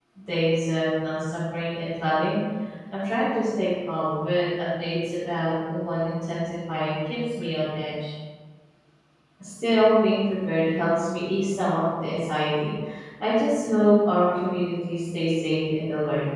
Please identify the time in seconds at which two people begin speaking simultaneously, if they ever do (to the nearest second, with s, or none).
none